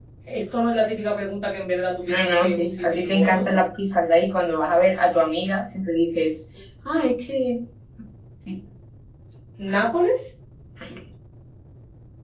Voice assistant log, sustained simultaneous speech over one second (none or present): present